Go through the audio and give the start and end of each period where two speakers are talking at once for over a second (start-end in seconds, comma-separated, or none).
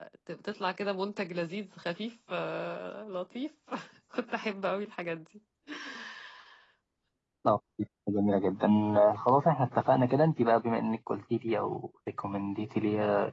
none